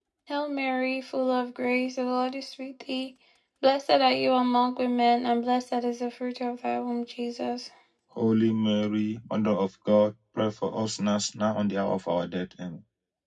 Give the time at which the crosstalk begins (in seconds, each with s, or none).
none